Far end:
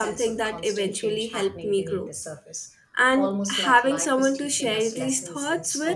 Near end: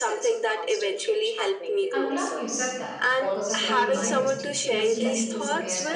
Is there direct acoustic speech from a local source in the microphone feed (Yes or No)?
Yes